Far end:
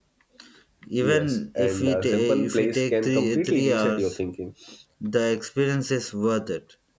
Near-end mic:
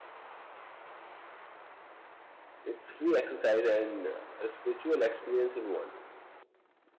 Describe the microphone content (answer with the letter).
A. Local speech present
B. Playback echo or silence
A